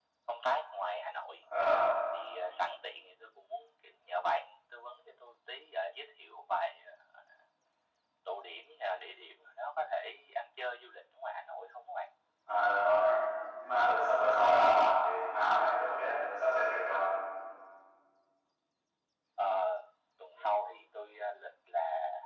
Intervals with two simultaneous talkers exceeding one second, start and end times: none

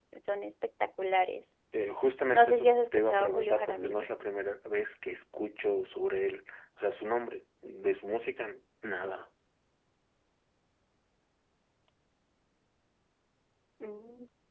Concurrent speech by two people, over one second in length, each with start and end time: 2.3-4.1

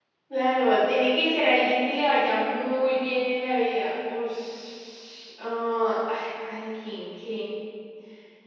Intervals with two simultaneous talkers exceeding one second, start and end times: none

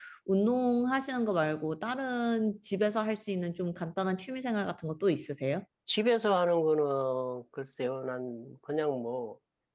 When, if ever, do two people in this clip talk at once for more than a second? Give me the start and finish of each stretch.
none

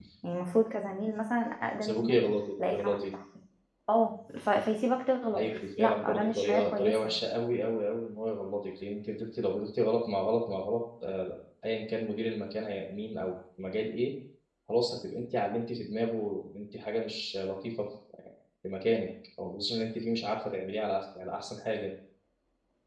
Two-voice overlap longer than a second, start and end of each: 5.4-7.2

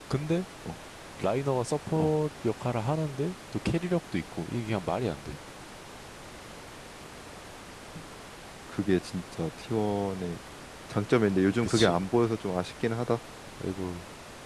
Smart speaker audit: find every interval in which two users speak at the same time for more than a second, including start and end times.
none

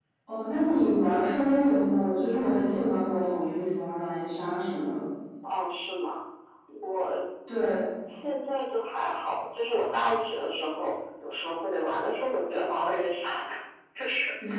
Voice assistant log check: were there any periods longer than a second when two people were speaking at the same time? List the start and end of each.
none

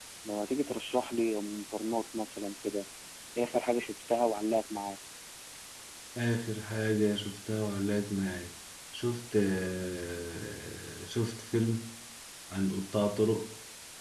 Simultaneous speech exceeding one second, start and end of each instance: none

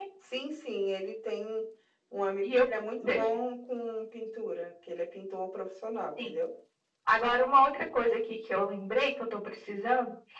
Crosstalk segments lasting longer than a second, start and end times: none

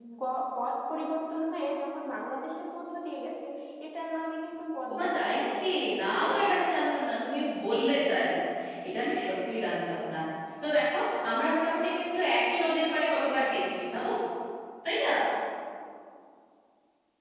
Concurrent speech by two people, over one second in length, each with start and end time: 4.9-6.5

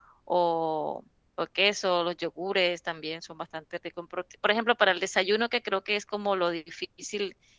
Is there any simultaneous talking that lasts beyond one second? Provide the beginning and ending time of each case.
none

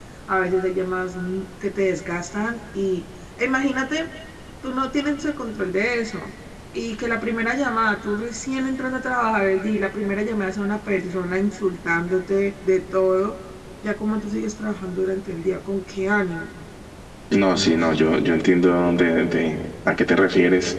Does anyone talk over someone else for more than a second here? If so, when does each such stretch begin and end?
none

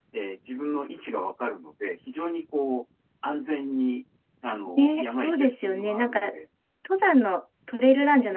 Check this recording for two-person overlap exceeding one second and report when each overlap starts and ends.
4.8-6.2

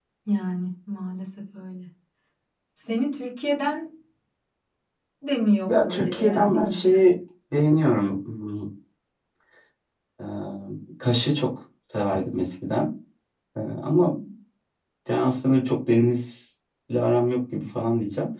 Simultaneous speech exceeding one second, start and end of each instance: 5.7-7.0

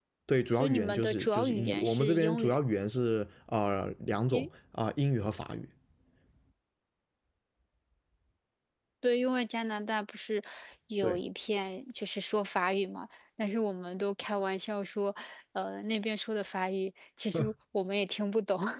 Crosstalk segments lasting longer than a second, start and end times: 0.6-2.6

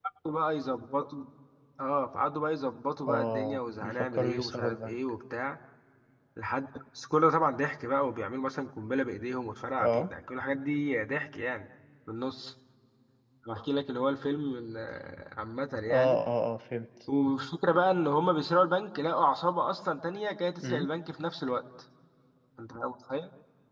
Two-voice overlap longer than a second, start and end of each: 3.1-5.0

